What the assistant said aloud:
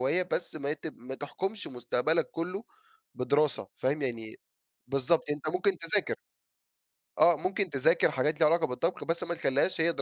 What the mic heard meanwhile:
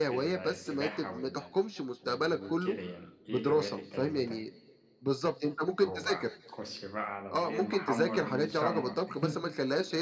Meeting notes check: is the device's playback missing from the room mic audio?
No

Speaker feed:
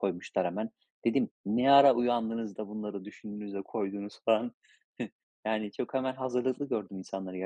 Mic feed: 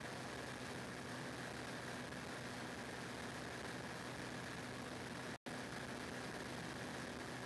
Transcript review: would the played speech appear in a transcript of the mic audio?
No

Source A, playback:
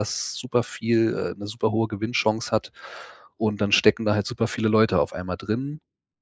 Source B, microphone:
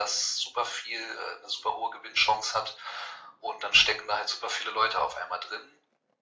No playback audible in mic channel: No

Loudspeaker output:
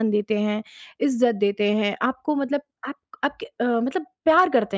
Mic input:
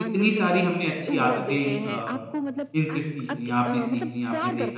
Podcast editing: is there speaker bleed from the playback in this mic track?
Yes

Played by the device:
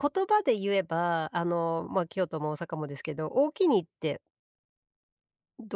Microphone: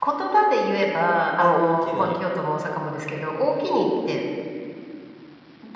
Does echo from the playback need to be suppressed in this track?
Yes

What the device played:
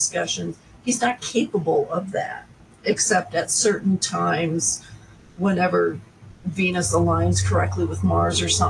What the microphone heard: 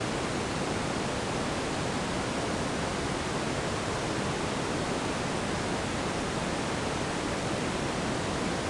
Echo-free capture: Yes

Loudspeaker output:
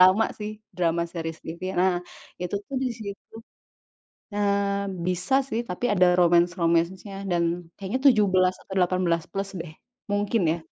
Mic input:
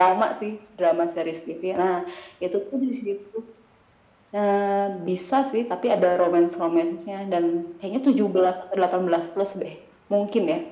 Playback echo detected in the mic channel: Yes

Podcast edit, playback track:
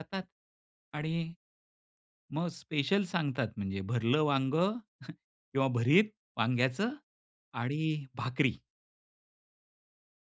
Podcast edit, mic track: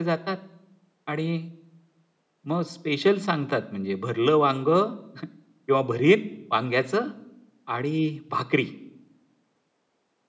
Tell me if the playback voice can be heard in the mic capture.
Yes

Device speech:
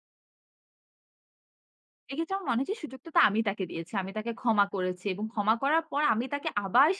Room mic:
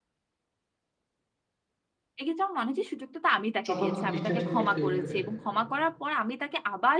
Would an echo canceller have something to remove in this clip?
Yes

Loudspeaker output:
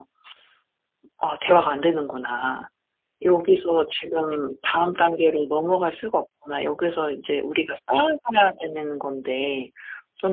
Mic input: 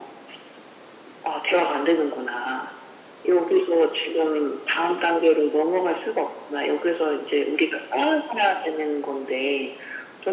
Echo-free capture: No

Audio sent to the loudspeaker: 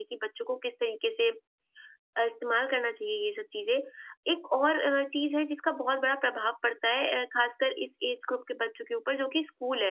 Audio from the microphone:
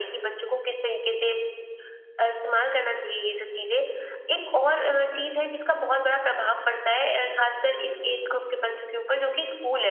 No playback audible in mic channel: No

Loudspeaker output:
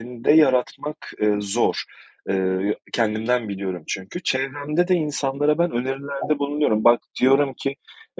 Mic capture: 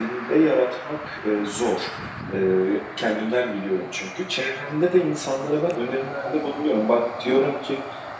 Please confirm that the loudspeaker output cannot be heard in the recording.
No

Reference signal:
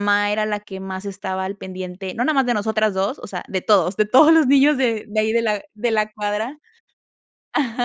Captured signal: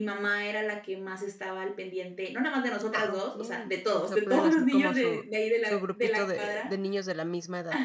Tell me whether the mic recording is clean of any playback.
No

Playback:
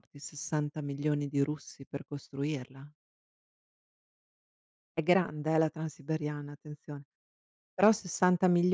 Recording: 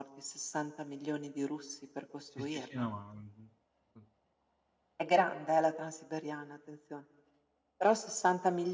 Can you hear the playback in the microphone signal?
Yes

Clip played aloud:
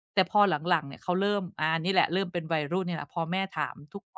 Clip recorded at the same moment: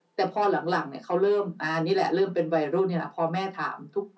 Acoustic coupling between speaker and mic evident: Yes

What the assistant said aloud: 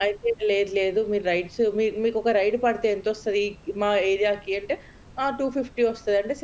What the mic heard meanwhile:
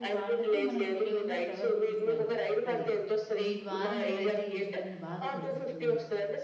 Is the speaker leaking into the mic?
Yes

